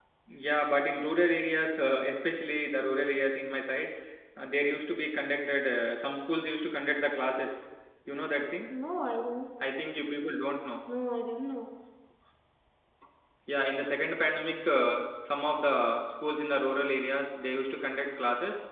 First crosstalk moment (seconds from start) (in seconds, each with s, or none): none